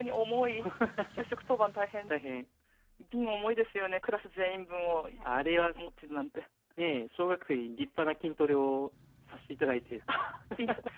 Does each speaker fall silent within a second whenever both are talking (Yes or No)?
Yes